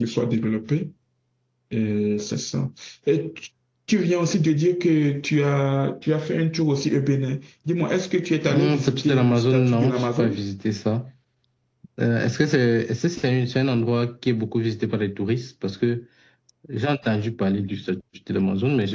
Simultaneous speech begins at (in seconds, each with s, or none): 8.5 s